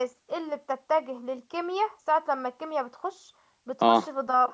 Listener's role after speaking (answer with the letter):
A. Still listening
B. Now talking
A